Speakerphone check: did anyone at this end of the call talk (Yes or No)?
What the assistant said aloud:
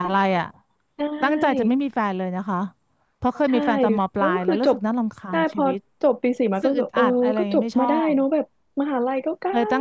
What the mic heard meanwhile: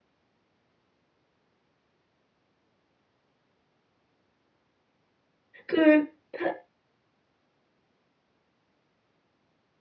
Yes